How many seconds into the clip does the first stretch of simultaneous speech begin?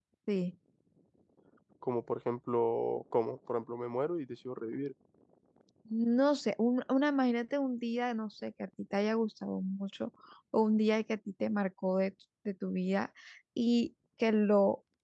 none

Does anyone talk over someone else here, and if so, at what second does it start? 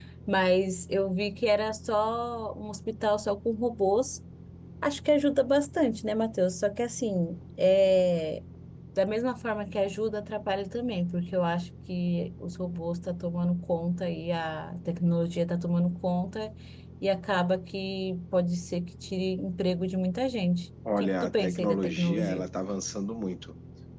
20.9 s

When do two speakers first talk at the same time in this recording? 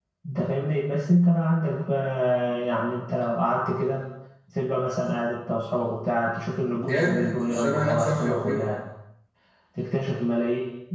6.8 s

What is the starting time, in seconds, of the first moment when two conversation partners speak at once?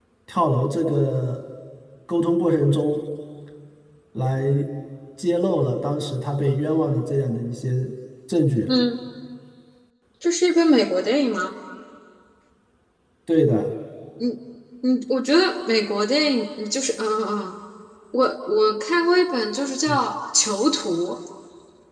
none

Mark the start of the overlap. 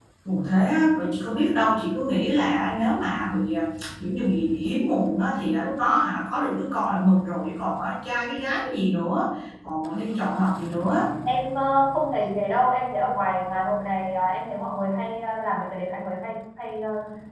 none

